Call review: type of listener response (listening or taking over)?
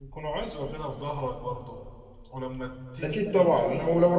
taking over